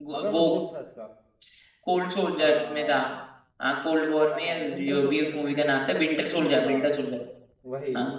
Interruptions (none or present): present